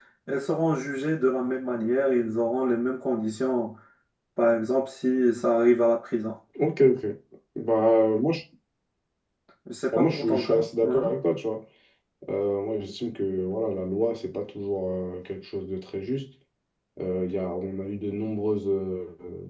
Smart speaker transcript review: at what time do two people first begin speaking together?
9.9 s

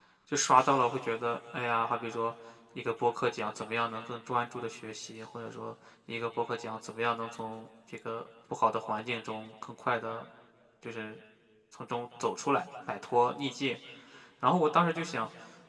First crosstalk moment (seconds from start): none

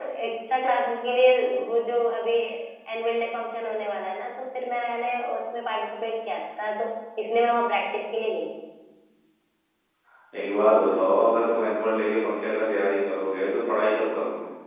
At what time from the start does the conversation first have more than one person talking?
none

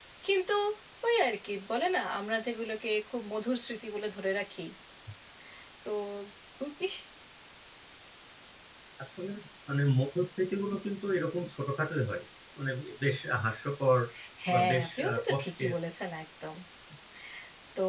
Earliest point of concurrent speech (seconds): 14.5 s

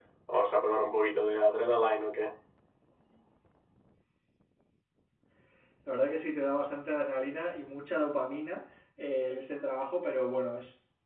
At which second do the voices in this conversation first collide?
none

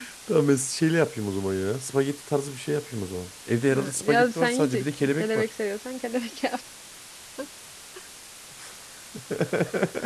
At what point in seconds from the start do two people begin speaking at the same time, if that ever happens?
3.7 s

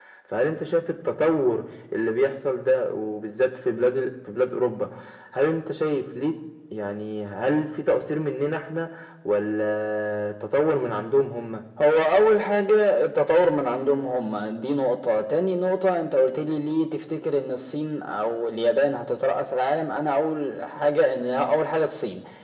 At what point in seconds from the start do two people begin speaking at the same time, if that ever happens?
none

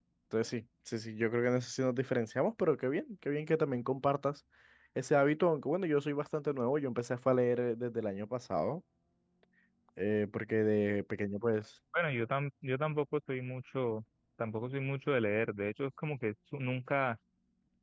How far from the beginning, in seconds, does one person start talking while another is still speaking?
none

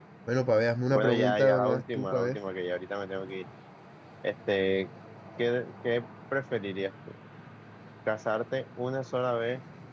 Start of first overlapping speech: 0.9 s

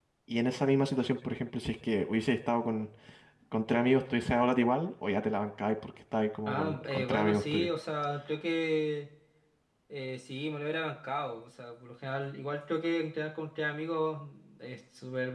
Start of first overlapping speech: 6.5 s

